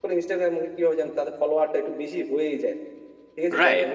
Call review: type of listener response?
taking over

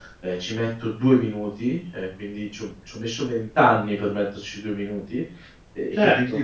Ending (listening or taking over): listening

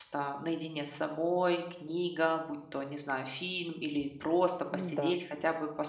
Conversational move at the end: listening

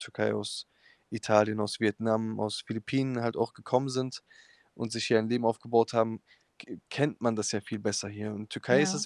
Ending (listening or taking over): listening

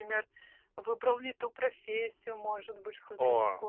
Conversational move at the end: taking over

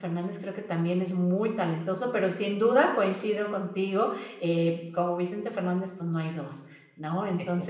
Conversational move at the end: listening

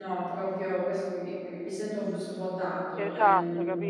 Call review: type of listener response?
taking over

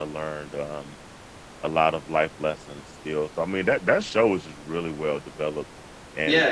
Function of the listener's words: taking over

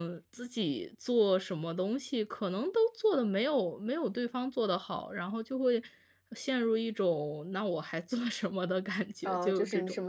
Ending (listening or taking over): taking over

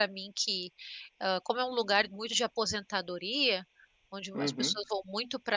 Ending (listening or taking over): listening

